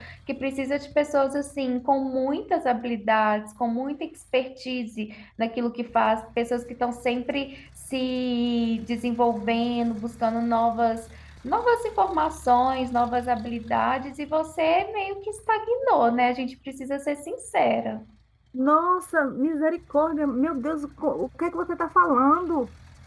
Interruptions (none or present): none